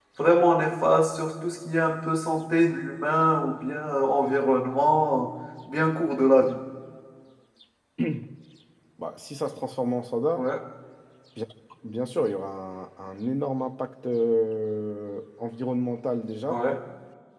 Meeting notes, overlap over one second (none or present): none